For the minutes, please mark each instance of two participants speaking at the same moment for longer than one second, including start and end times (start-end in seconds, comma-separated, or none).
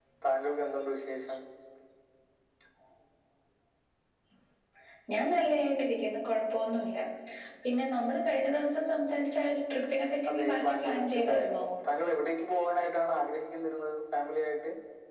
10.3-11.7